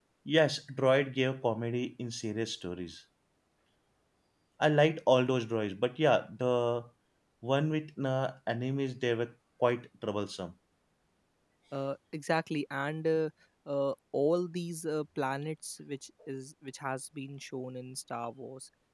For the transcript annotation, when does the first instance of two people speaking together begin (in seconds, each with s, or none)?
none